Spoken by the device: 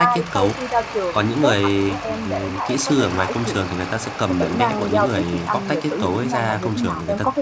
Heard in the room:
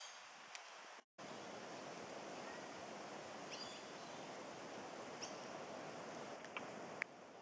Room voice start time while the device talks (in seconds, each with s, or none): none